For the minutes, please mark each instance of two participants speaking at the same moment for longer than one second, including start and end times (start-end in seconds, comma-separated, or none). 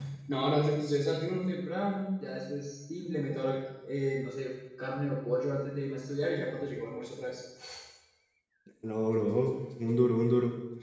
none